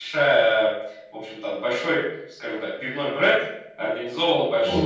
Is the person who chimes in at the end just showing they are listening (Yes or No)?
Yes